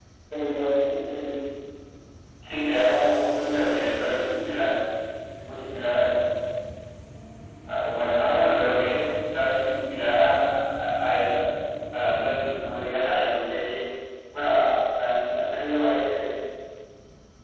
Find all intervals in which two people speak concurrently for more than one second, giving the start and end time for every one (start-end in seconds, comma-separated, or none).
none